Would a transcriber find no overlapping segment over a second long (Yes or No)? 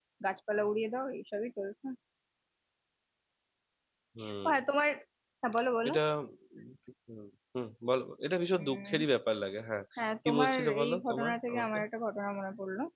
No